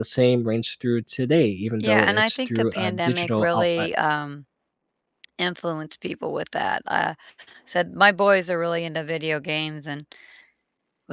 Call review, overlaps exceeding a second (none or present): present